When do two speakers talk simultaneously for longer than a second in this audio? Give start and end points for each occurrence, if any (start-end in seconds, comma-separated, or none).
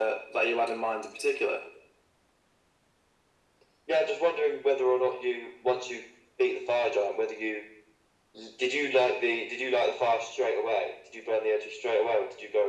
none